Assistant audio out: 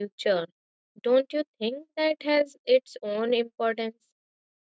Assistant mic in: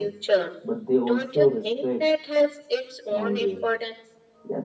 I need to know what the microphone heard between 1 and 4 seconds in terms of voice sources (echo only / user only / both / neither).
both